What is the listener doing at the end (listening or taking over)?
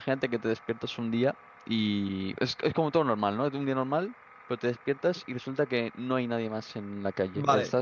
taking over